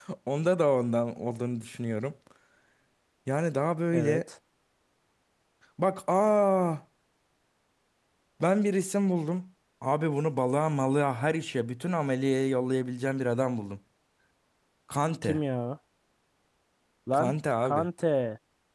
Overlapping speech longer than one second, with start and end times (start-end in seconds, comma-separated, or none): none